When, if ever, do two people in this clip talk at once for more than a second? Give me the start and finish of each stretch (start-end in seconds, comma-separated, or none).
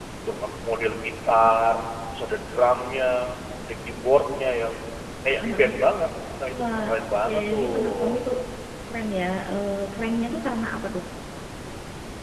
6.5-8.2